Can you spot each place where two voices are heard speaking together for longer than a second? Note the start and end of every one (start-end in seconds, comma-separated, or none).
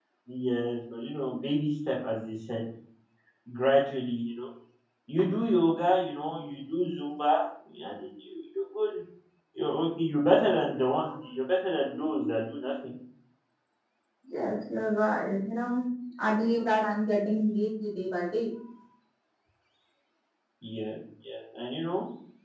none